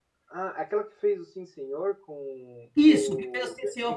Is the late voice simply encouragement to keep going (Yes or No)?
No